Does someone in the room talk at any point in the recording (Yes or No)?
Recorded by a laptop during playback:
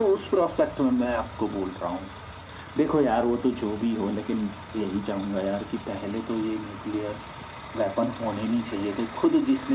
No